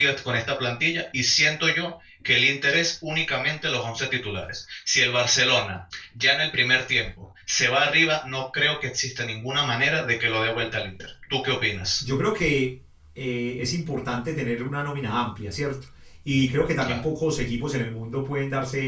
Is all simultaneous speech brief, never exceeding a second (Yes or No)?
Yes